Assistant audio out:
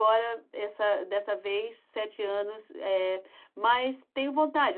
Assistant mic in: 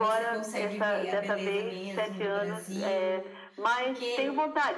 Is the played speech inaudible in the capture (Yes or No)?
No